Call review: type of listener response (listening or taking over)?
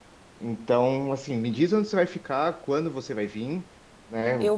listening